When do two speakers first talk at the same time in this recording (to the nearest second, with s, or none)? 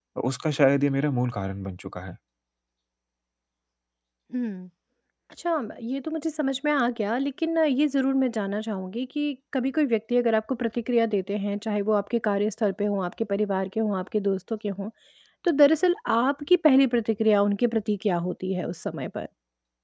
none